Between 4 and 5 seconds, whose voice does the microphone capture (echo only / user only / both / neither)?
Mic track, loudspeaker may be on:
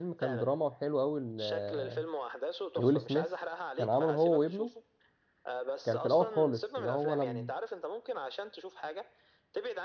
both